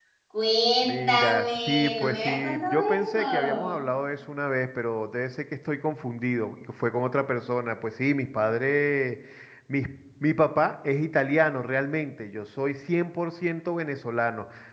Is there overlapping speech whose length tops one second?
Yes, from 0.8 s

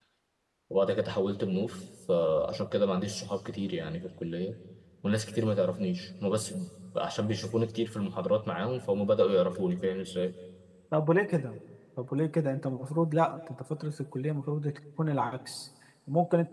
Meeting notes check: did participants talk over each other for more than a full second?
No

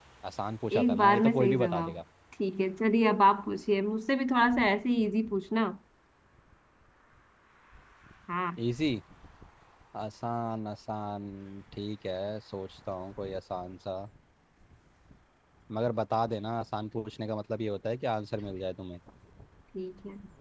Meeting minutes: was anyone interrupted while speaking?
Yes, from 0.8 s

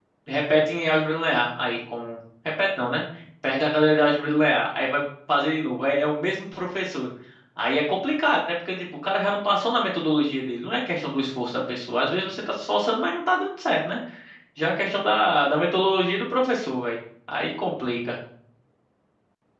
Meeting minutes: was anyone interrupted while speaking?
No

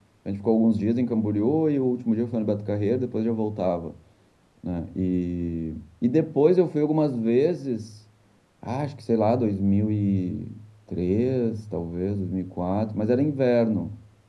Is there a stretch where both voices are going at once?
No

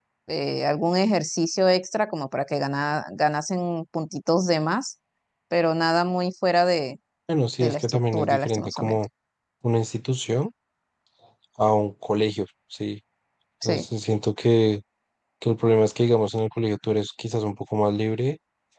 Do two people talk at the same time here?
Yes, from 7.6 s

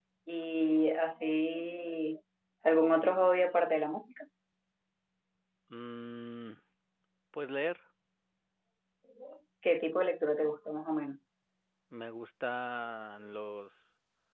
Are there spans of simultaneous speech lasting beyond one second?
No

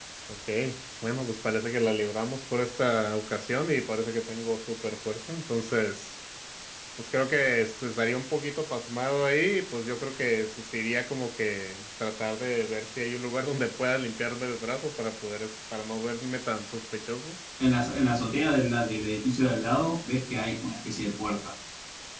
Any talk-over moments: No

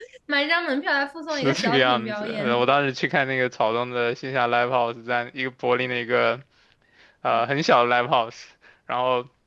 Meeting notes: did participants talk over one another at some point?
Yes, from 1.3 s

